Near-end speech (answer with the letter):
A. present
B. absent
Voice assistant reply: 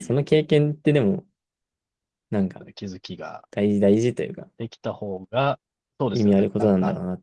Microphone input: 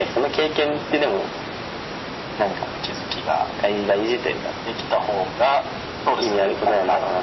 B